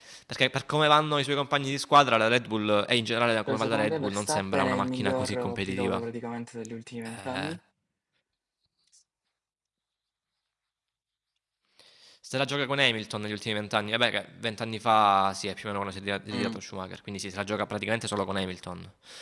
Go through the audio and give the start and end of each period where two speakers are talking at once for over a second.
3.5-6.0

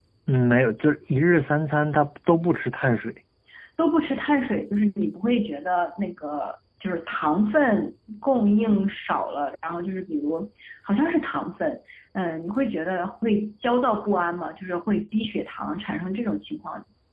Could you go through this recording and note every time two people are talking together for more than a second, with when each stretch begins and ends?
none

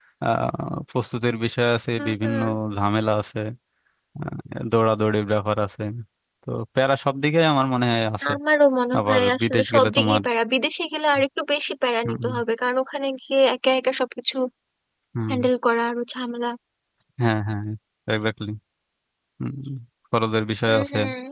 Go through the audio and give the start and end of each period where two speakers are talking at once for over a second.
9.0-10.2

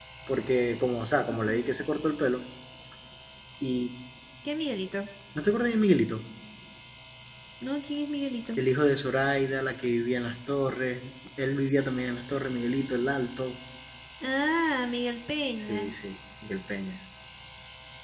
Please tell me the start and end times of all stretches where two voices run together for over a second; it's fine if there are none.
none

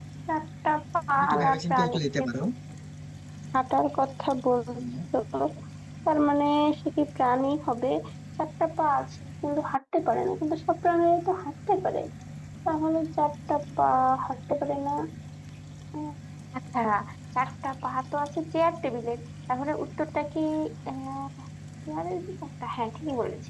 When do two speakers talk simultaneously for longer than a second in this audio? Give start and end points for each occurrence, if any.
1.1-2.4

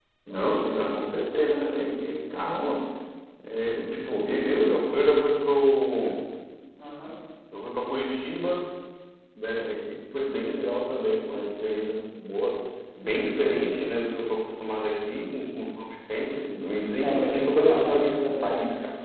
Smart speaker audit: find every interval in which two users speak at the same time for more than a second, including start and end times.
17.1-18.5

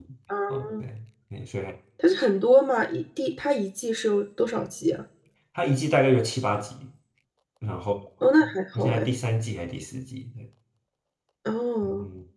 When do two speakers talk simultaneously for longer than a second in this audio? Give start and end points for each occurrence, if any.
none

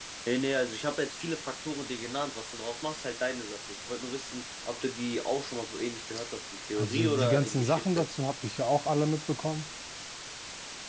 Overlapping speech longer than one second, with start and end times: 6.8-8.1

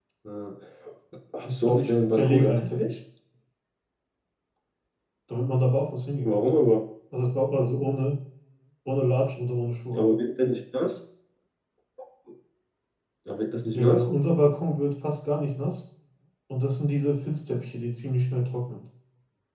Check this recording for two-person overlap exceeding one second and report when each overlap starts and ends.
1.7-3.0

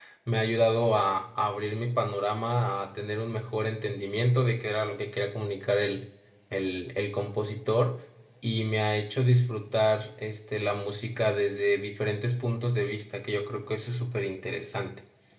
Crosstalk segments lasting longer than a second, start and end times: none

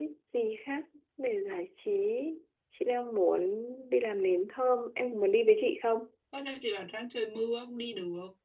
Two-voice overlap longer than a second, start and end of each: none

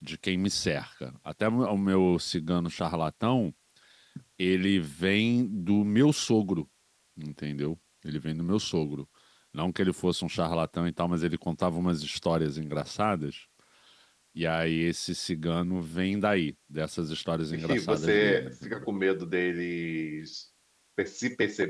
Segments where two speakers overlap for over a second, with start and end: 17.5-18.9

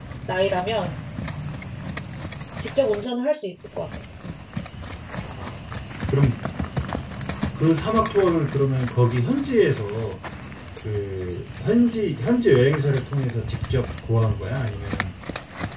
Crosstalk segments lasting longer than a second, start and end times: none

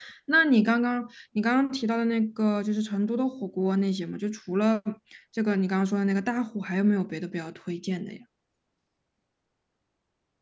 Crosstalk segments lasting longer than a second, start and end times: none

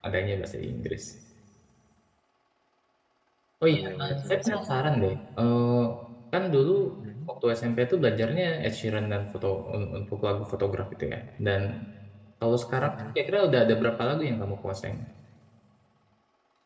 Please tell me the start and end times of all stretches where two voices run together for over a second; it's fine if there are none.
3.7-5.0

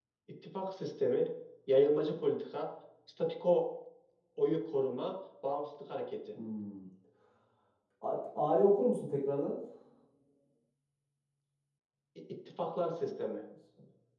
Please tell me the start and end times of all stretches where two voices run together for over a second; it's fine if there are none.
none

